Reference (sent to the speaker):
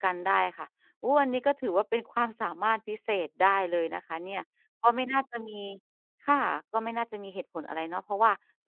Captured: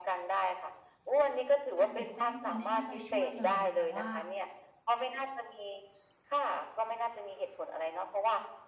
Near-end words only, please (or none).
การปิดแจ้งเตือนเนี่ยน่าจะช่วยเลยแต่ว่า